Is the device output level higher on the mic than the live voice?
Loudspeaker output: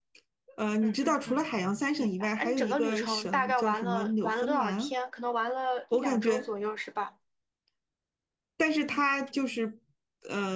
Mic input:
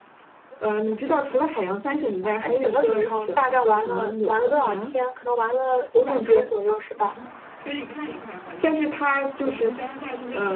Yes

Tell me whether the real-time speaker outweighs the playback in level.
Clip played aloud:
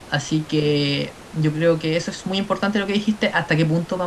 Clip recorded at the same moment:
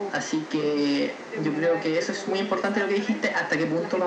No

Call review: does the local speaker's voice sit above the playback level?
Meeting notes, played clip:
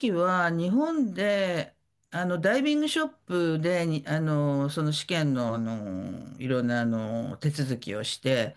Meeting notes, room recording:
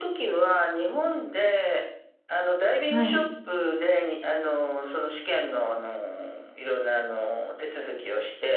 Yes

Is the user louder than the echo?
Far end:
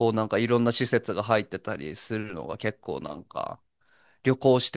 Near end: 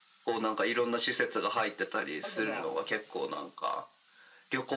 No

